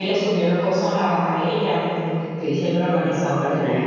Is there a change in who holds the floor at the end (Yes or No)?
Yes